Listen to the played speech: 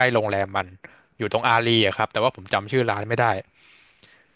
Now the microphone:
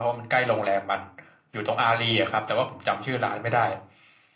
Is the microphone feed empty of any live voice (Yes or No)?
Yes